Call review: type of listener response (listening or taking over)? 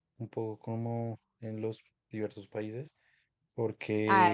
taking over